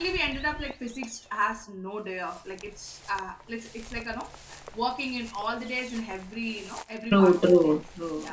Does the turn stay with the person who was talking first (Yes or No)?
No